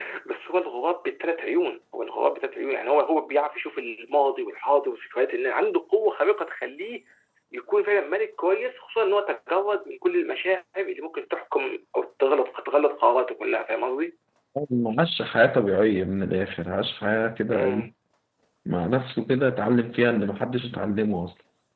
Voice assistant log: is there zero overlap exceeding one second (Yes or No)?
Yes